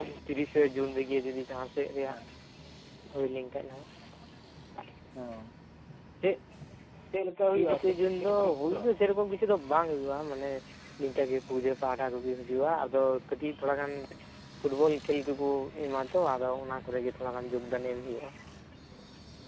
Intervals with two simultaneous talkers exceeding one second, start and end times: 7.5-8.8

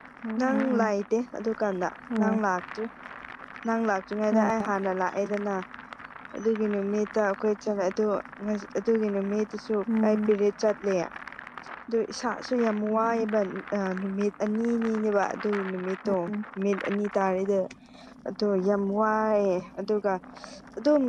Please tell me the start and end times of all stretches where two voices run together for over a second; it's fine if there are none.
none

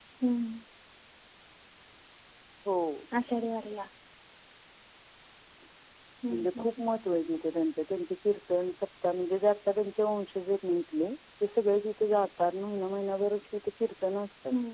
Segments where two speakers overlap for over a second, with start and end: none

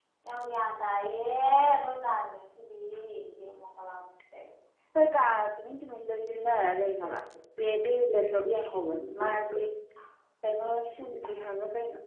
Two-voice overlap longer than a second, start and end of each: none

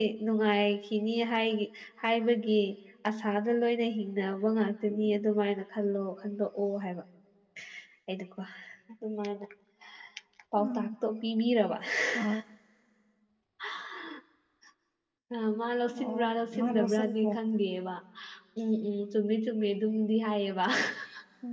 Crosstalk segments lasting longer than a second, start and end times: 16.0-17.3

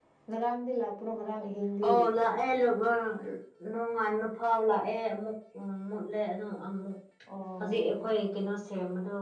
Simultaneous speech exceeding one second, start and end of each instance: none

